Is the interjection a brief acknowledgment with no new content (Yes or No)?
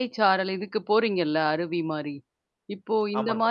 Yes